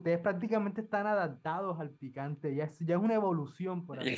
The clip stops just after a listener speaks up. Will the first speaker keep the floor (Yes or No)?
No